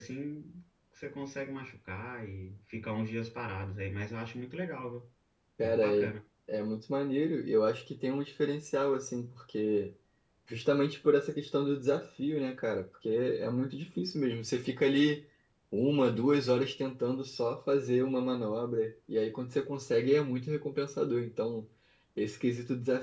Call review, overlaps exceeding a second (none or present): none